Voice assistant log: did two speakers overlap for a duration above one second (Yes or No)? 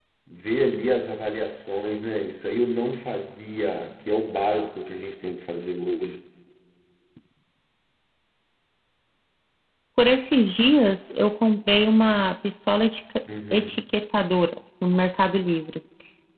No